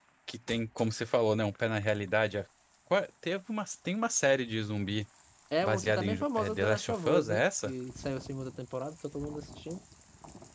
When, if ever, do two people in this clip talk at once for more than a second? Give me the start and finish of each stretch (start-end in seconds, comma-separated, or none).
5.6-7.7